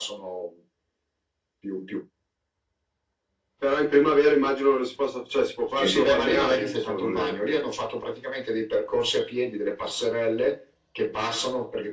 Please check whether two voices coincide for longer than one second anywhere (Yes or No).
Yes